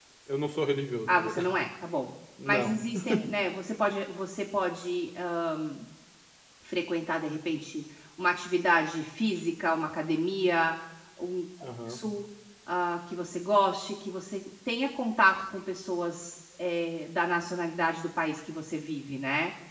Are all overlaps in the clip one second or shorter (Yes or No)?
Yes